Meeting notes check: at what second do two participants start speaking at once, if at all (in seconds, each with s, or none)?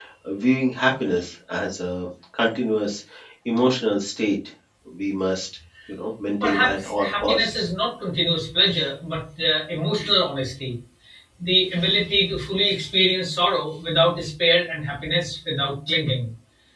6.4 s